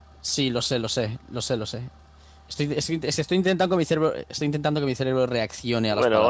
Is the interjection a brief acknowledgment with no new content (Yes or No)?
No